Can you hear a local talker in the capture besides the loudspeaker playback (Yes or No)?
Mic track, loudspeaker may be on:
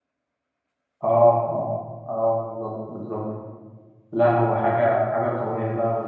Yes